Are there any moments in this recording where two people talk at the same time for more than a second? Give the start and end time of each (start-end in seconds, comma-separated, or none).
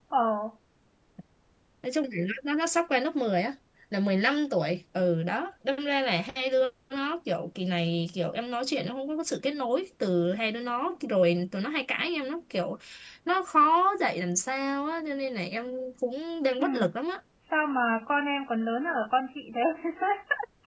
none